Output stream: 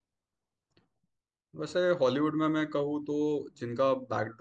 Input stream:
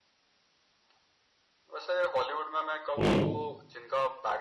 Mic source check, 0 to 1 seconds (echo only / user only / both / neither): neither